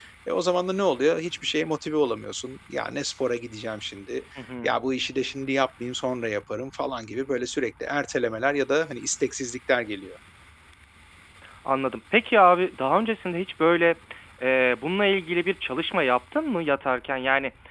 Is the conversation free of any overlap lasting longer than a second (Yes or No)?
Yes